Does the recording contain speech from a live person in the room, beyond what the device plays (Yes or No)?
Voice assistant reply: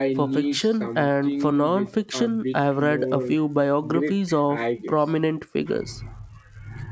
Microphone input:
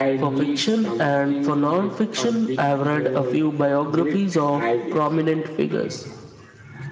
No